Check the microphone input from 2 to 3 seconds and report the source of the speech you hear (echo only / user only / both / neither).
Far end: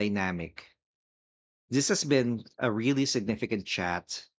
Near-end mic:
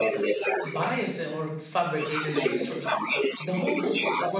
both